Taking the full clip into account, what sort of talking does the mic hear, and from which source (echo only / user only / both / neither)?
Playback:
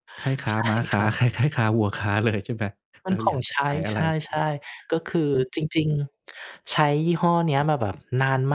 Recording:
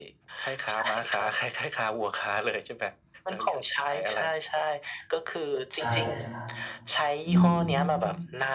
both